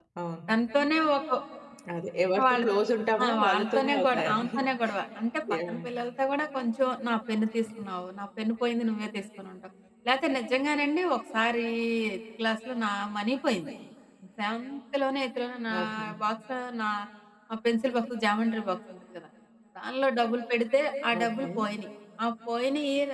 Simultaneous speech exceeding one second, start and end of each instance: 3.2-4.5

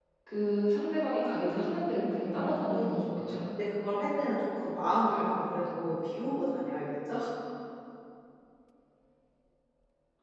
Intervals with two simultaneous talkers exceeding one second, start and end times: 1.8-3.4

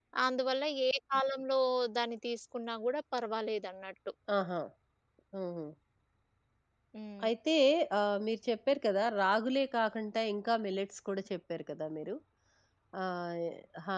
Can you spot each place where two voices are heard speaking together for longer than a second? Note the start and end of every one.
none

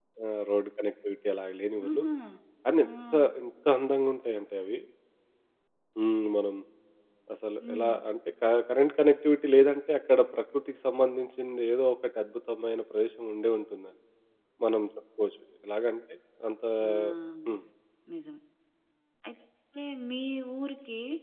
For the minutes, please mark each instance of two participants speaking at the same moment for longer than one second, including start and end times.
none

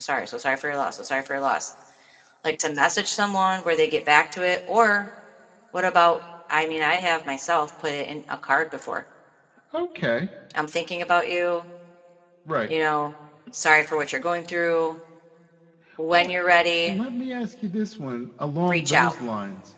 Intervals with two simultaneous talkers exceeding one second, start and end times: none

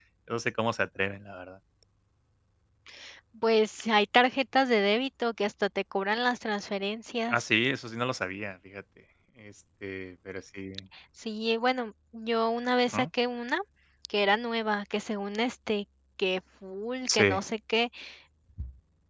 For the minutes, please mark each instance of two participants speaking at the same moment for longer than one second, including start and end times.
none

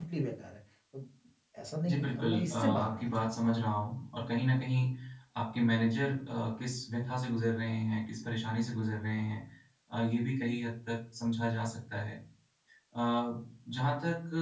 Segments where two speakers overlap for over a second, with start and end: 1.9-3.5

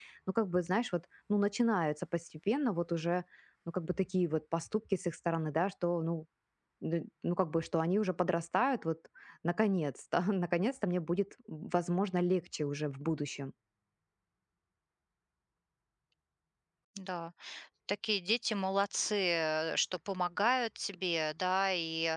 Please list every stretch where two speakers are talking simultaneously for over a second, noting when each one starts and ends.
none

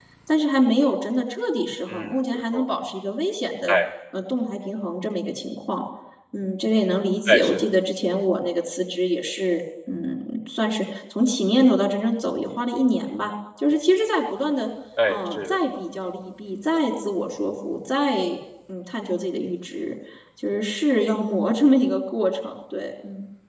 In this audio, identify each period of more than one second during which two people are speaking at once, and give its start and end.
none

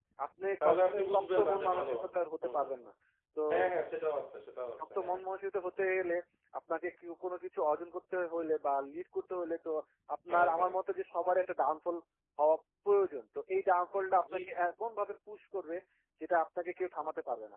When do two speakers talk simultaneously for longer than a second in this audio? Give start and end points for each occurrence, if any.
0.6-1.9

